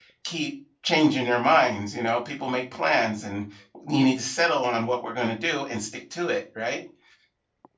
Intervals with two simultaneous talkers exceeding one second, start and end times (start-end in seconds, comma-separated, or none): none